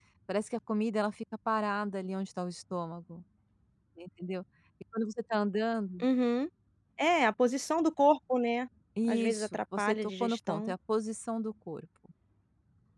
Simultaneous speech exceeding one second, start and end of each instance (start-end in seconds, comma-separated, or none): 9.1-10.7